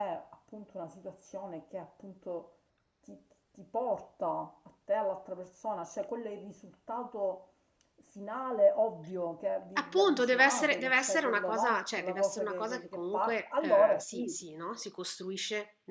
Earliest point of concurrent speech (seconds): 9.8 s

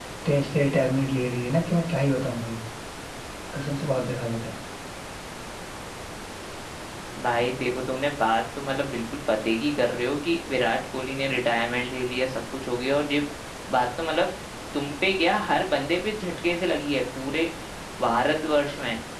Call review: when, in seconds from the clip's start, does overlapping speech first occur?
none

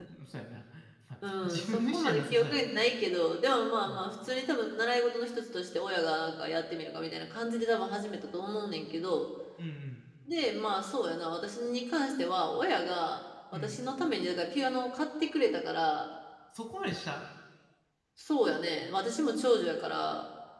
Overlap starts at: 1.4 s

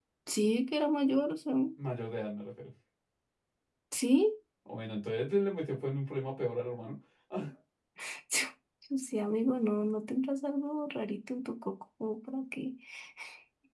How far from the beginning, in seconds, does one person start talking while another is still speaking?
none

